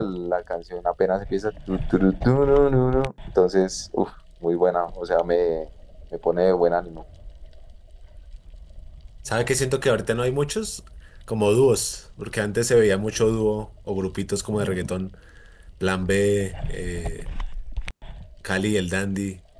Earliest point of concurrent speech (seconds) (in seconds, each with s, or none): none